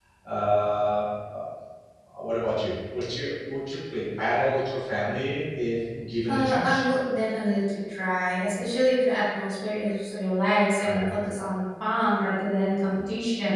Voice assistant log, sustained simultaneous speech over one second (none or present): none